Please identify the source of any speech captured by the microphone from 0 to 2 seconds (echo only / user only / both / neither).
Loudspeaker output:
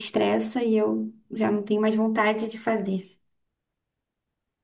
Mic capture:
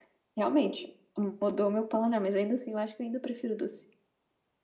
user only